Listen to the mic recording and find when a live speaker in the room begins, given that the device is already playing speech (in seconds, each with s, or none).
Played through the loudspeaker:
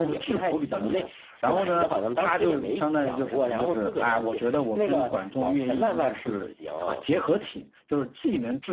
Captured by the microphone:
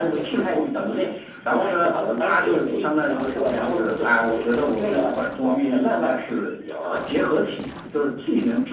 none